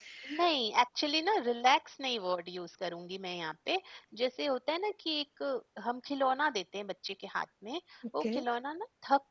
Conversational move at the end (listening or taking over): listening